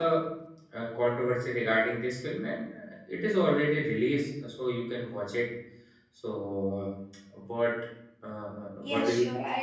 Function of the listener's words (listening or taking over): taking over